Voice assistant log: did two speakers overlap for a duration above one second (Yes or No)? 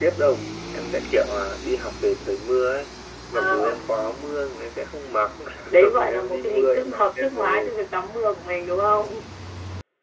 Yes